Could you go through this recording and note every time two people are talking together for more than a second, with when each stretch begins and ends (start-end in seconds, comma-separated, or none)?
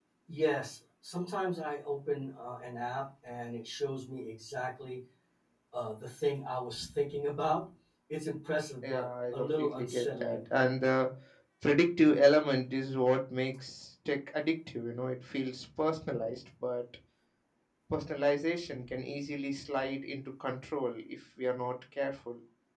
8.8-10.4